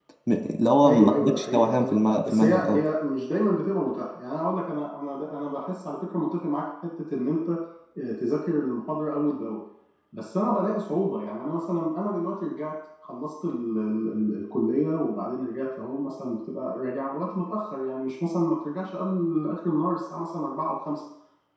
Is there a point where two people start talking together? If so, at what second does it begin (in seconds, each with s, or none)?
0.8 s